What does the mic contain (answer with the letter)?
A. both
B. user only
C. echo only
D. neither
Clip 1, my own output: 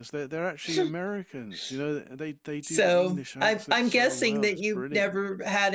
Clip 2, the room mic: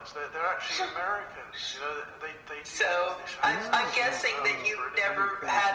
A